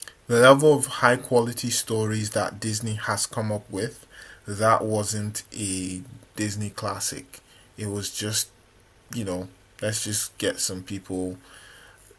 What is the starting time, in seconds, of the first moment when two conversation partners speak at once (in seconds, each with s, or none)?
none